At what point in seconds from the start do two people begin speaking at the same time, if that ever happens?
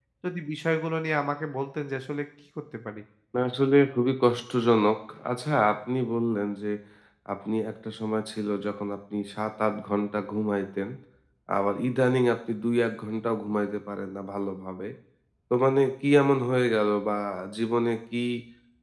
none

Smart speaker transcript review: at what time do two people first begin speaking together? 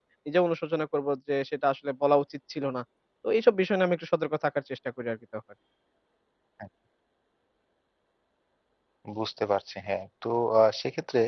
none

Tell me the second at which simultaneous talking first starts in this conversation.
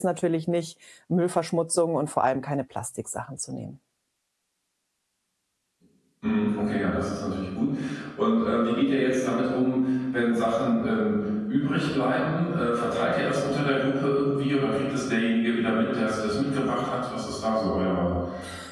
none

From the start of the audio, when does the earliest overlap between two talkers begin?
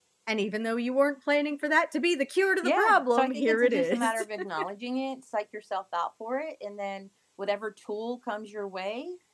2.6 s

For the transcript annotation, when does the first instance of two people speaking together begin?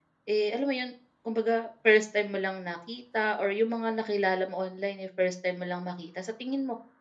none

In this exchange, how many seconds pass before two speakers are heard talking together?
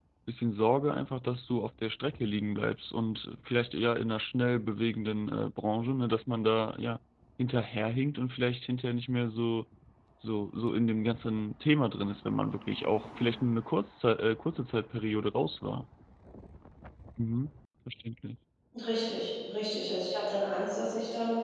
none

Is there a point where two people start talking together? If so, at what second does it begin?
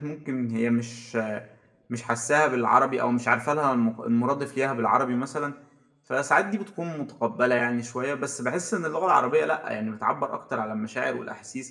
none

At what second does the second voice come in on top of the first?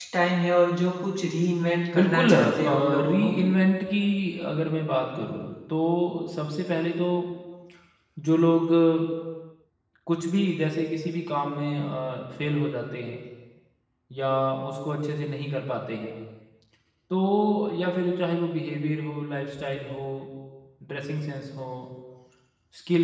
1.9 s

